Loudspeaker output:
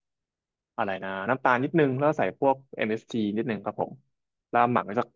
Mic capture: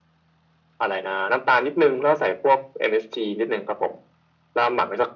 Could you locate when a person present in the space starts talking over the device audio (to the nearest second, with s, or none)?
none